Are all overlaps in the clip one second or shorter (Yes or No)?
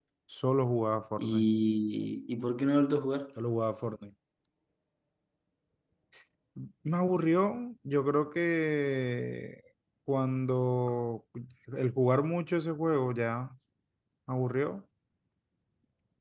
Yes